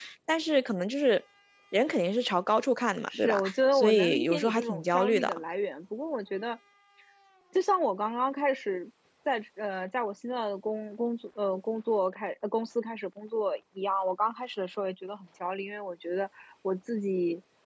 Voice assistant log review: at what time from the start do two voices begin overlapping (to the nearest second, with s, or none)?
3 s